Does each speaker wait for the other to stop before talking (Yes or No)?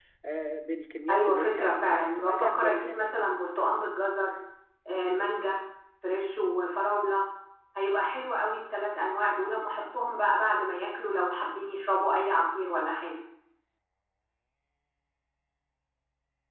No